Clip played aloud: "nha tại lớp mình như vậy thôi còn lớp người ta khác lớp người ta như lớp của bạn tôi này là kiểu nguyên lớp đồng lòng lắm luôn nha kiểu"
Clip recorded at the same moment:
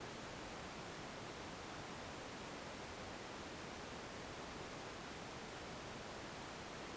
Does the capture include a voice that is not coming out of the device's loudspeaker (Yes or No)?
No